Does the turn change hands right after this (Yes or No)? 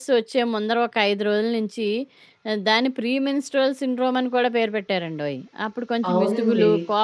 No